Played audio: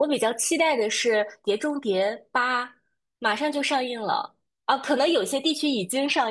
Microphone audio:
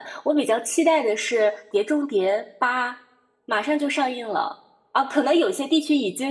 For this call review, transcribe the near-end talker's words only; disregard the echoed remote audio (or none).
none